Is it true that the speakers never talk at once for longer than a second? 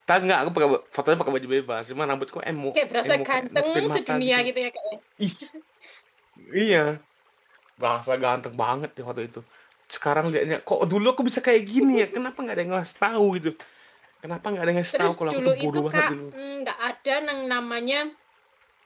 No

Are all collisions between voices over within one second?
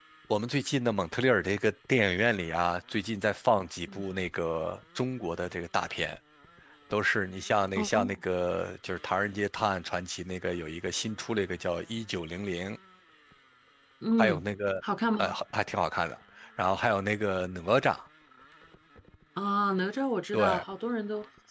Yes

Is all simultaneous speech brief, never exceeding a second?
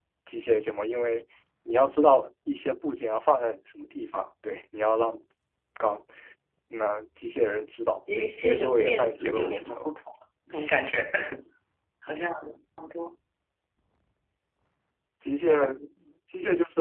No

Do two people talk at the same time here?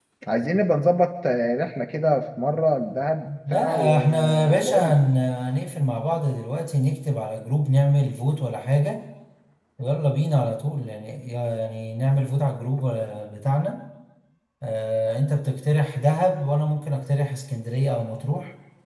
Yes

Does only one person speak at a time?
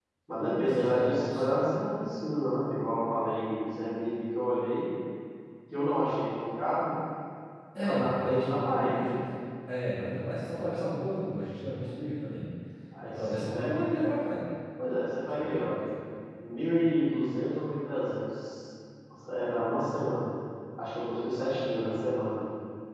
No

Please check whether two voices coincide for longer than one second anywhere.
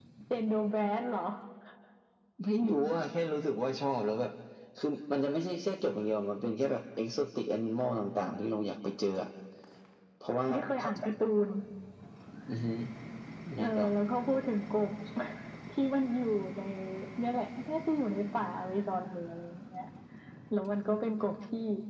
No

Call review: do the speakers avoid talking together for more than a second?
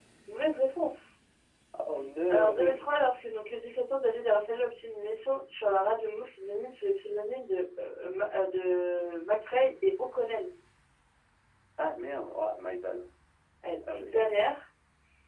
Yes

